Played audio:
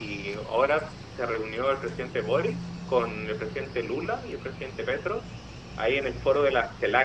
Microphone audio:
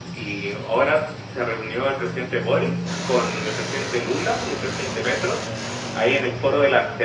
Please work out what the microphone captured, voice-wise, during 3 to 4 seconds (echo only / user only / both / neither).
echo only